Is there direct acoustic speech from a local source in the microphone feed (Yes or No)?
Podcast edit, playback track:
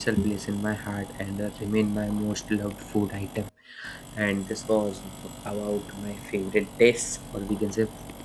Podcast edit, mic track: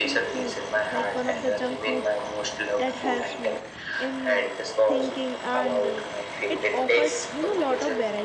Yes